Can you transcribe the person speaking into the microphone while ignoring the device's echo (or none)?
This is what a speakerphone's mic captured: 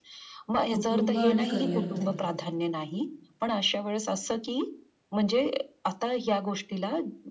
कुटुंब आणि करिअरमध्ये